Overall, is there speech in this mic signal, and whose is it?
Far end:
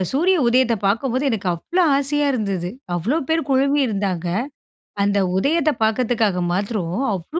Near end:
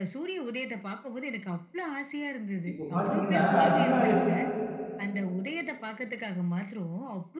both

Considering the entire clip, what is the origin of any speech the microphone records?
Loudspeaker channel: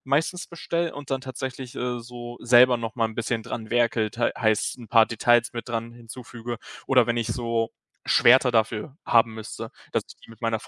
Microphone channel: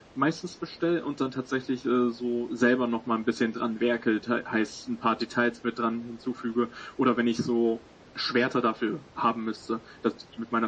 echo only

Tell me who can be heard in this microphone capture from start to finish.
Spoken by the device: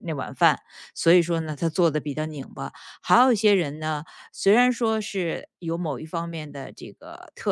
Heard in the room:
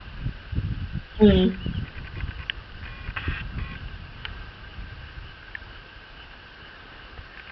user only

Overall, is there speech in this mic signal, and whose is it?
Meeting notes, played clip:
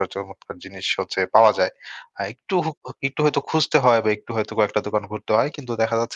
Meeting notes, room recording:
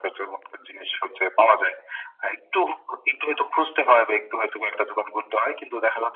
echo only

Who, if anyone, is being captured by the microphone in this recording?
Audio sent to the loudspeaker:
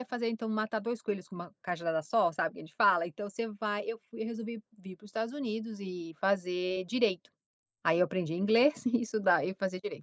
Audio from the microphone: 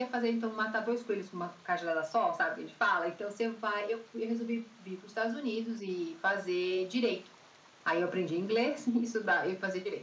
echo only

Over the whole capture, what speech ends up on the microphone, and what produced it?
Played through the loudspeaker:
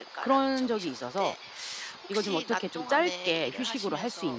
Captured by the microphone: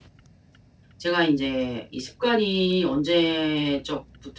user only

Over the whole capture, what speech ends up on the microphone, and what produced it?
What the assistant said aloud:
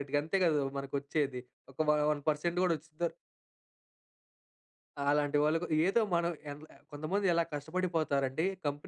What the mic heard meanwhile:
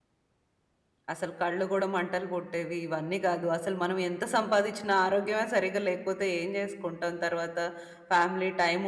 user only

